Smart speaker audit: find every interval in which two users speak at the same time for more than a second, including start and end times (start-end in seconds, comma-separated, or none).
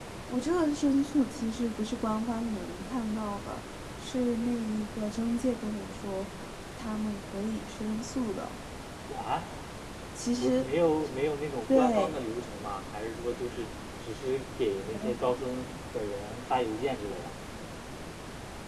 none